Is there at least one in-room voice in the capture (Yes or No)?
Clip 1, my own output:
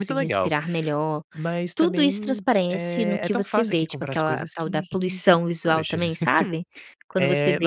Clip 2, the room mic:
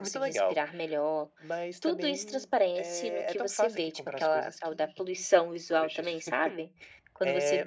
No